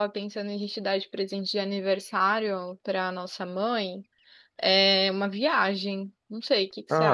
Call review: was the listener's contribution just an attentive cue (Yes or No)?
No